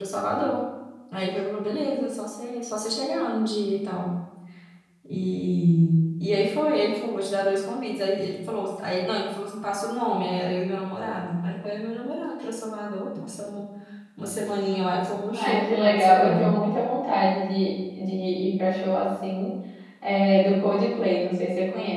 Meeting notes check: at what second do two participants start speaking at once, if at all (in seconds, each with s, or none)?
15.3 s